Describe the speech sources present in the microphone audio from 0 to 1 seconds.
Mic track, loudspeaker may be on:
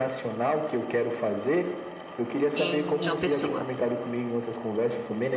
echo only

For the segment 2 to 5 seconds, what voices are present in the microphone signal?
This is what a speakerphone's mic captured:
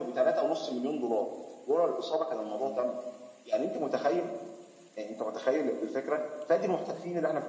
echo only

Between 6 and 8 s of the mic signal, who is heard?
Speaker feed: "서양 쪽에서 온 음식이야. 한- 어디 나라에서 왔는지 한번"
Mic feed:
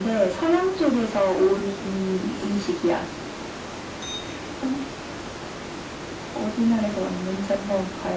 echo only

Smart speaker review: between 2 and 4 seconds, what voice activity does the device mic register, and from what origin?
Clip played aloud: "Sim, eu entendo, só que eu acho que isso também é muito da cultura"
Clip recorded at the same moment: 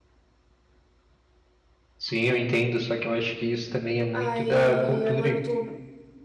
echo only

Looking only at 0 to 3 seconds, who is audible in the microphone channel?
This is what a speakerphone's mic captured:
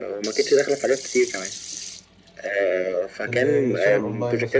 echo only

